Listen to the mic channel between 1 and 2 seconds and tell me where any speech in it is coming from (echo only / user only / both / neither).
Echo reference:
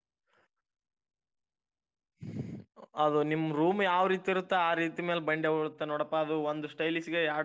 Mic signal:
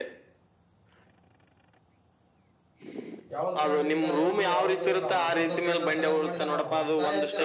neither